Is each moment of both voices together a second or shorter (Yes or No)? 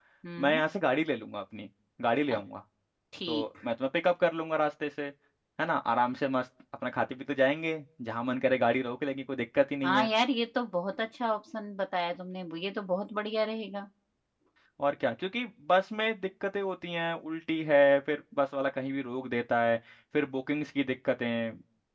Yes